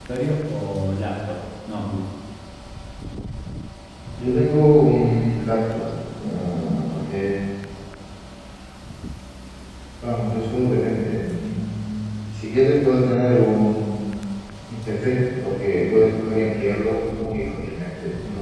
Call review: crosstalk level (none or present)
none